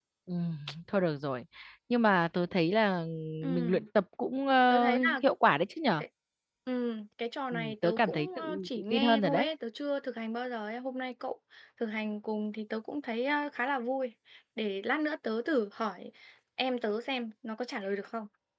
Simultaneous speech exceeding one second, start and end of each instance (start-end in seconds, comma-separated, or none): 7.5-9.5